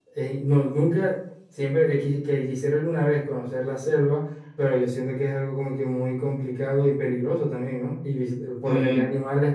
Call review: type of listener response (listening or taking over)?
listening